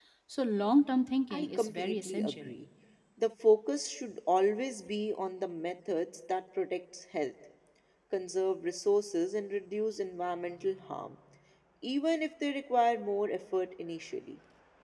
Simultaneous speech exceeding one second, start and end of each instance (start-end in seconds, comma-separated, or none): 1.3-2.5